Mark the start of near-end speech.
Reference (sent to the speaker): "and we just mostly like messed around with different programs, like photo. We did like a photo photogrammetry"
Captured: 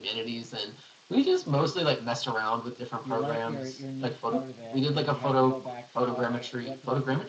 3.0 s

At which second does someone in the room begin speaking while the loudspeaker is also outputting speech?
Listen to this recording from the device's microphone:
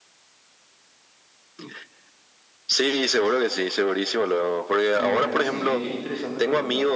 5.0 s

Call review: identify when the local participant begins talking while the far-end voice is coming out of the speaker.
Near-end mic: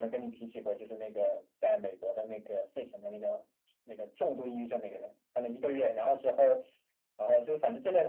none

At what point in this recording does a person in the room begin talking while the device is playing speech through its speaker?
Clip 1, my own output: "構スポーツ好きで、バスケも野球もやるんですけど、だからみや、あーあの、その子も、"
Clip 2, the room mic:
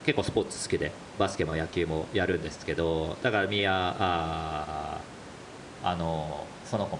none

